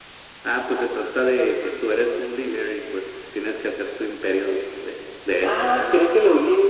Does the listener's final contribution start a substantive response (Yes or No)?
Yes